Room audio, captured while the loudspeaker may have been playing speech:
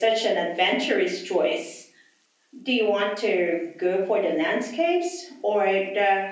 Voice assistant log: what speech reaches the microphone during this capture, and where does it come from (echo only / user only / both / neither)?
echo only